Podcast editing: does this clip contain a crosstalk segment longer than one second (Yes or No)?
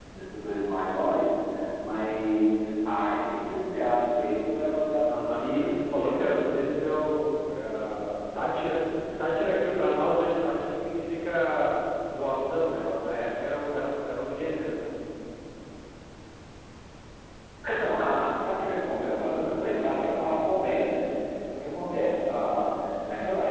Yes